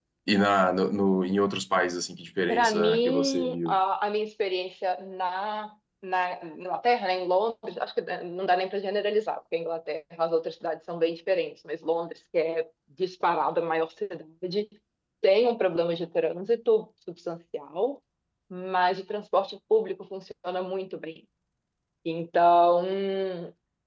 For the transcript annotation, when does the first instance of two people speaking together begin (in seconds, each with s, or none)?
2.5 s